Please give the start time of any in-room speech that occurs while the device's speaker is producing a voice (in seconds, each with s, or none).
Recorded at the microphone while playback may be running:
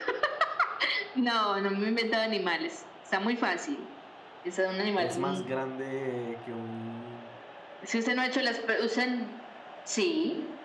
4.9 s